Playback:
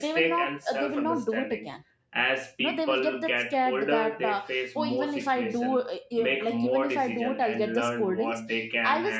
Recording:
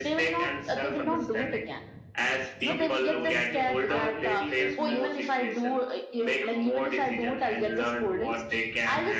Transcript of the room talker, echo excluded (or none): so which slowly shape how they see themselves